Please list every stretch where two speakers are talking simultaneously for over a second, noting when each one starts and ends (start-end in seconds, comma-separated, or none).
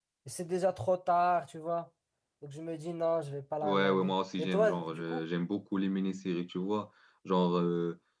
3.6-5.2